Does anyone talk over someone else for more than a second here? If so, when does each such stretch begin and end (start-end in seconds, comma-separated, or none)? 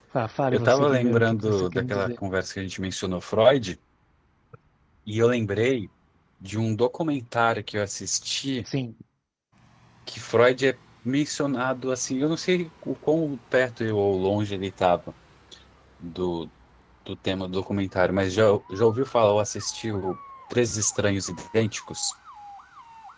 0.5-2.2